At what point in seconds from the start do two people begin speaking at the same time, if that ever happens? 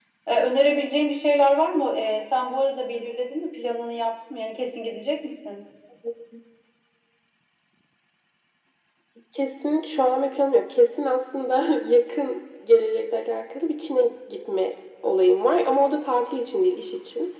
none

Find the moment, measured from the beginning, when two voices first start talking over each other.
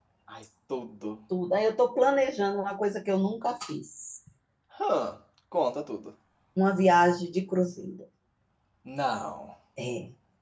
none

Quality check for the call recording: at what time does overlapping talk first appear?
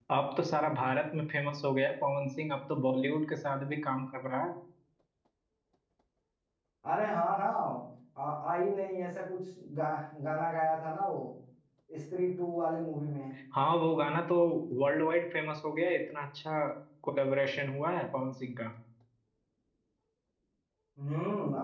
none

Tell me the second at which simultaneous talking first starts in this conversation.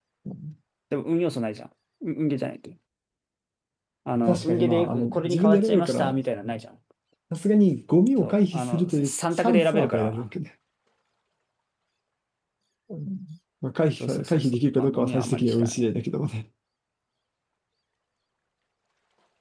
4.3 s

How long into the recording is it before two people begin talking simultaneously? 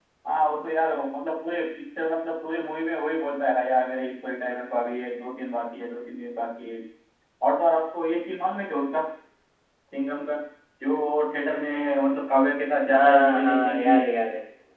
12.9 s

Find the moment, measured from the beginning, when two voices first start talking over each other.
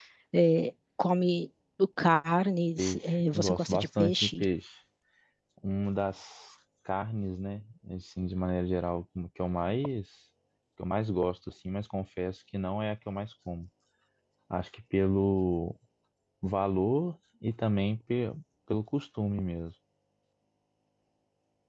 2.8 s

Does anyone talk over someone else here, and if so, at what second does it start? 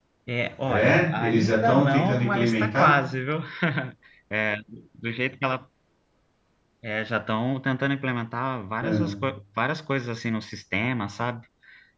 0.7 s

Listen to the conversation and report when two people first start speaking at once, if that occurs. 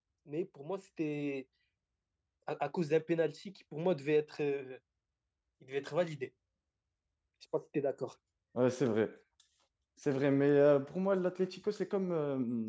none

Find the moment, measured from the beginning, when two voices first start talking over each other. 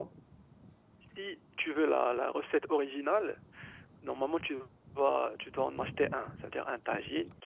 none

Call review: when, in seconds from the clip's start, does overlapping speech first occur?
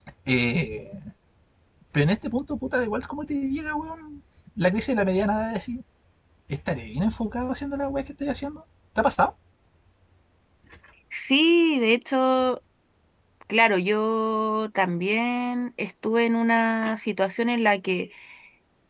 none

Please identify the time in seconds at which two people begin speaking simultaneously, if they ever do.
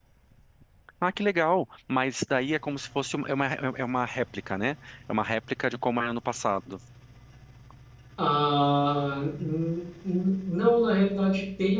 none

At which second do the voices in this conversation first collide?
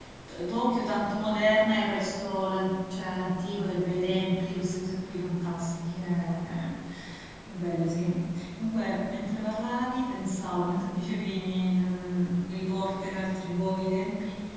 none

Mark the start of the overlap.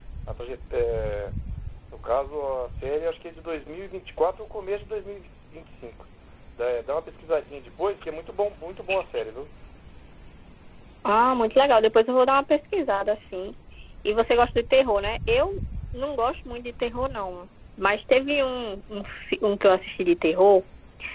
none

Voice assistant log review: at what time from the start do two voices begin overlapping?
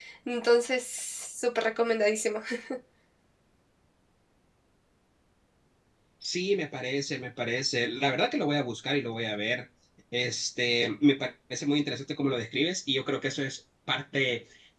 none

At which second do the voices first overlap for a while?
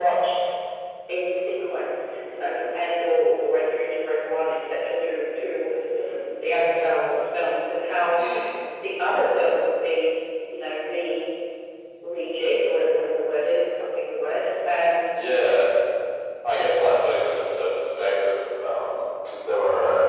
none

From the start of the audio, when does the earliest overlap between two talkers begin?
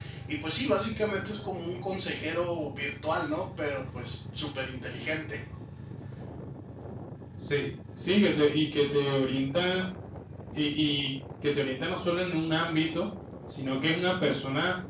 none

